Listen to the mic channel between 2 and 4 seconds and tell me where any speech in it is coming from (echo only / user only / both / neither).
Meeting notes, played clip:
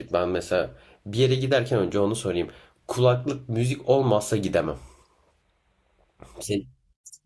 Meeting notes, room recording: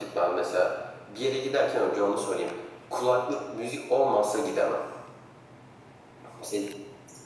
echo only